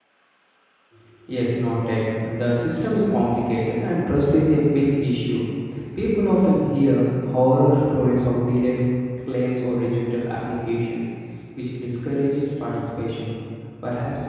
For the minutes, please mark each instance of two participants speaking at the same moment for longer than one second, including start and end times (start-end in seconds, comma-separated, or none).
none